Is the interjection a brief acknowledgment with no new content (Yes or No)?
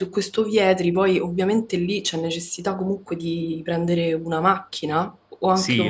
No